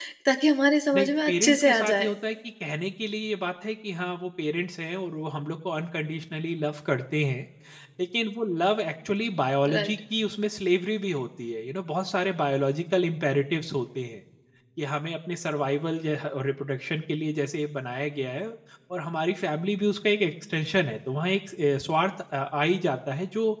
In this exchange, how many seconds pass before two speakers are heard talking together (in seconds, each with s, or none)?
0.9 s